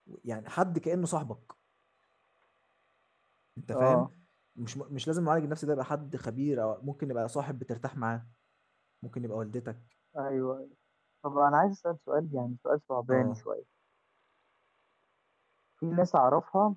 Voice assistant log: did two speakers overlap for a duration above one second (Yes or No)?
No